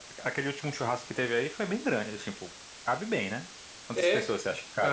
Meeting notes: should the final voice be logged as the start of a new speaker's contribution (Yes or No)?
Yes